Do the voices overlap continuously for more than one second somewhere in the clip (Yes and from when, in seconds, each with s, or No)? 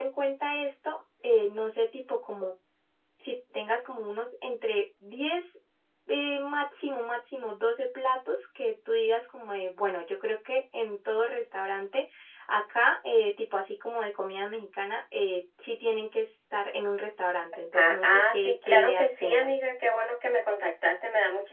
Yes, from 17.5 s